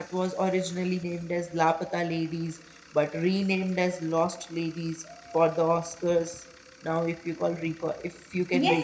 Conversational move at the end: taking over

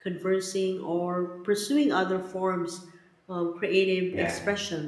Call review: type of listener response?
listening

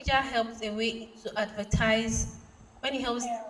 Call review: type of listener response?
listening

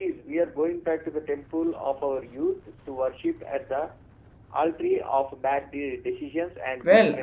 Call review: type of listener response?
taking over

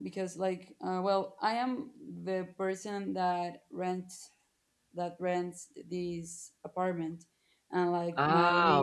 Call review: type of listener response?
taking over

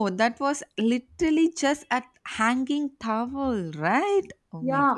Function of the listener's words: taking over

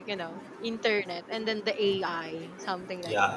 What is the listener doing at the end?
taking over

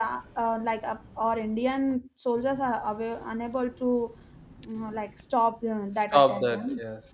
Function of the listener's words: taking over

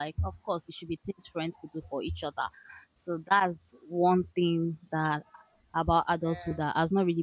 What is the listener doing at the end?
listening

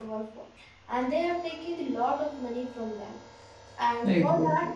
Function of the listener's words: listening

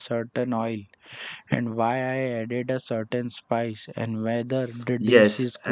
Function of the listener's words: taking over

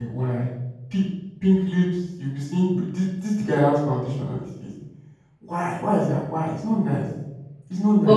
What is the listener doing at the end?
taking over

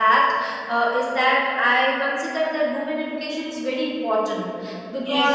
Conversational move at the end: taking over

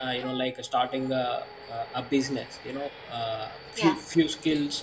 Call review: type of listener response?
listening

